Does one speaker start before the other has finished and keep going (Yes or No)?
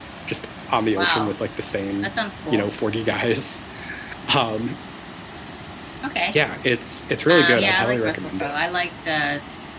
Yes